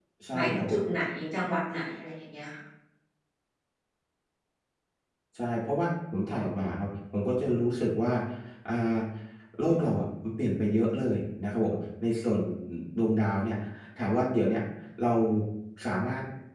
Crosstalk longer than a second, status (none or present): none